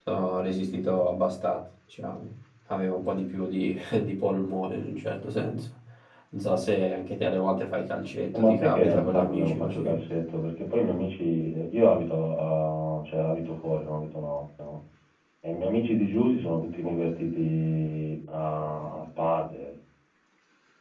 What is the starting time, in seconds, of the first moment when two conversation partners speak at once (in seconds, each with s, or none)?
8.3 s